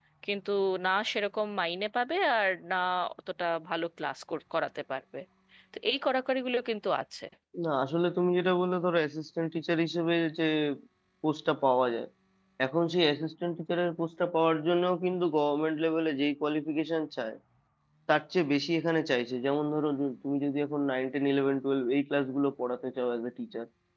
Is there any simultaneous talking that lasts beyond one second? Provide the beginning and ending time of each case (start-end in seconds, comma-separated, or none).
none